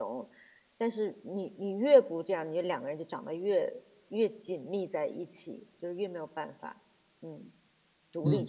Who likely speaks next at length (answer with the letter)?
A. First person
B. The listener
B